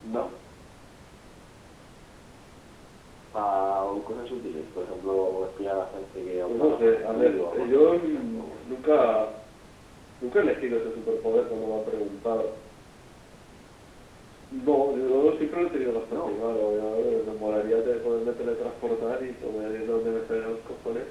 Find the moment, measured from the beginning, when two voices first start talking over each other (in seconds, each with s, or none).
6.5 s